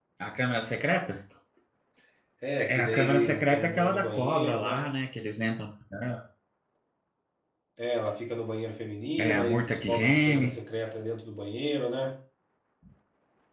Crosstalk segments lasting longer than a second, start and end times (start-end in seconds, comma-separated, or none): 2.7-4.9, 9.2-10.6